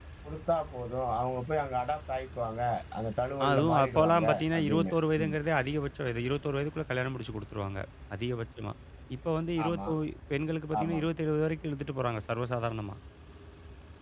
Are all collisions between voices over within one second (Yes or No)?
No